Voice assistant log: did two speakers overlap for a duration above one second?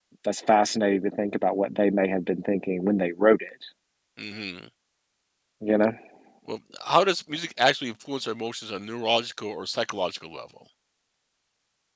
No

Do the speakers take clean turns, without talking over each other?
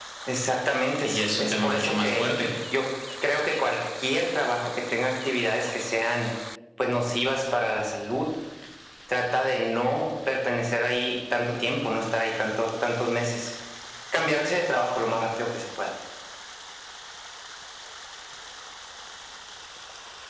No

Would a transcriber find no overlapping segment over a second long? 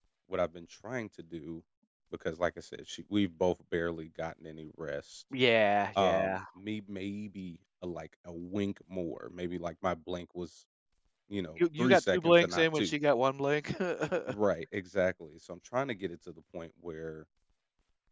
No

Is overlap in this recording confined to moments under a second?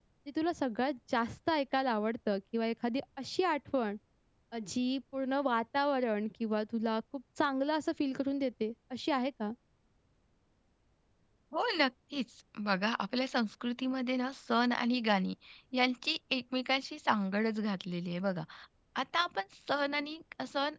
Yes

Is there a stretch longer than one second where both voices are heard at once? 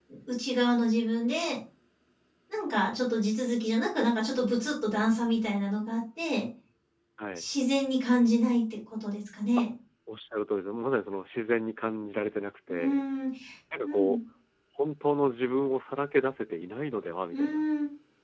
No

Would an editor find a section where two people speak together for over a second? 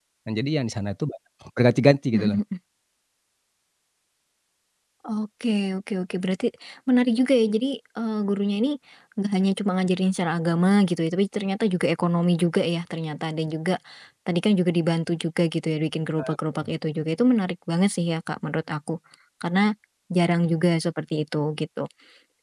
No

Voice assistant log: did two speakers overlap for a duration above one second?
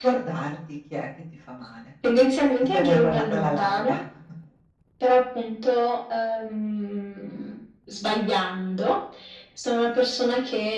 Yes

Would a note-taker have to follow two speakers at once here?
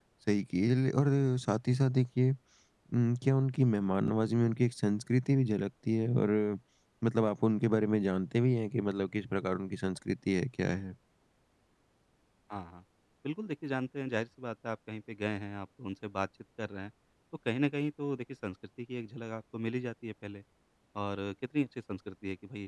No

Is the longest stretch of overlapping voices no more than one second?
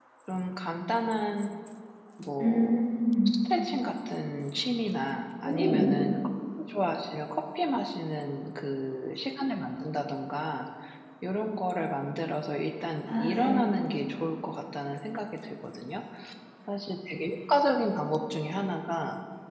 Yes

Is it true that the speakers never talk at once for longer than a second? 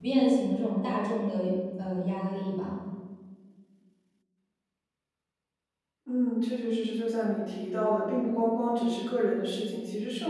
Yes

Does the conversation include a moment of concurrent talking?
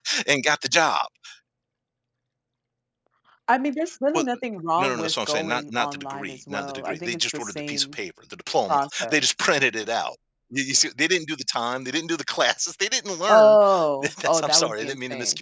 Yes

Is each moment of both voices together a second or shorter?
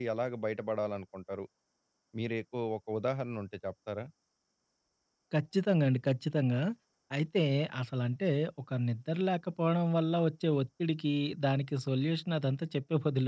Yes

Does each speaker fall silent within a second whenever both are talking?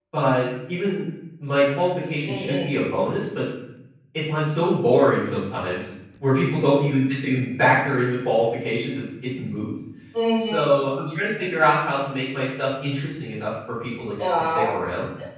Yes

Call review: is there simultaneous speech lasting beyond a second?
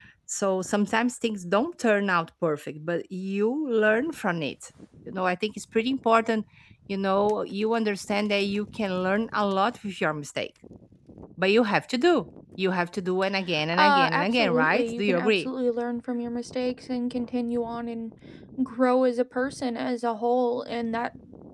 Yes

